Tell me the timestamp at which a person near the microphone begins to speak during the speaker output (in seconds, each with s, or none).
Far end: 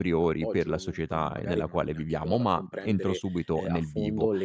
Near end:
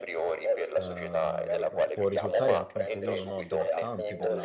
0.7 s